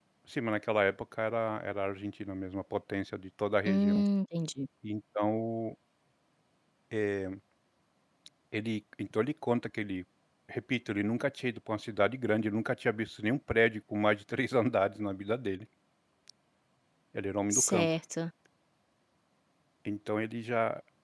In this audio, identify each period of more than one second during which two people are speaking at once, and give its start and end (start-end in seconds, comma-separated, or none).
none